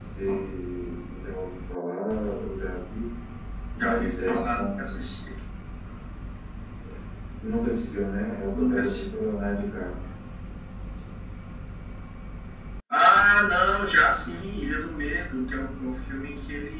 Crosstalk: present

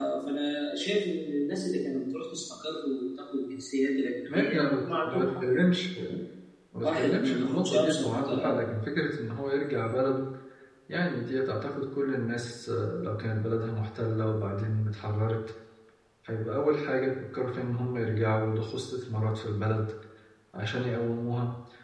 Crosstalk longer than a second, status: present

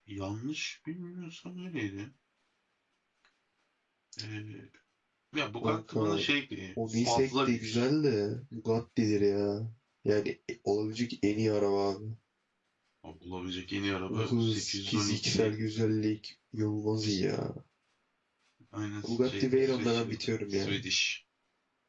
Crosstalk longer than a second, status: present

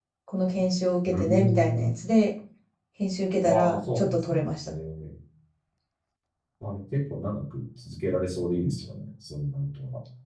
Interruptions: present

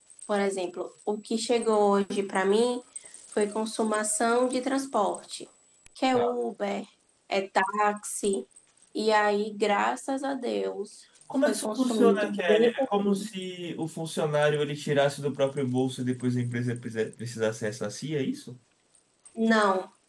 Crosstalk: present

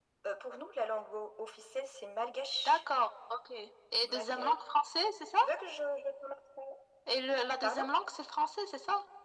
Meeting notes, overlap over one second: none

